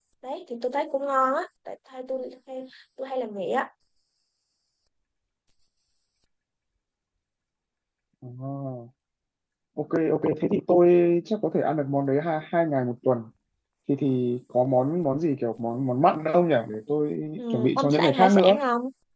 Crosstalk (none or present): present